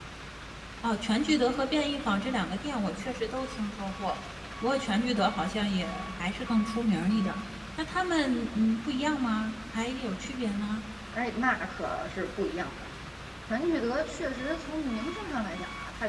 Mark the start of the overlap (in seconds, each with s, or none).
none